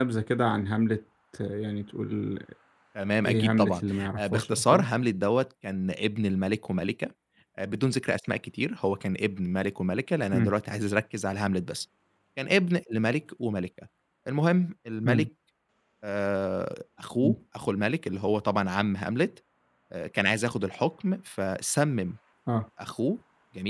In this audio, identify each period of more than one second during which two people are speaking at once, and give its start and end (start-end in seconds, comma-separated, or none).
3.2-4.9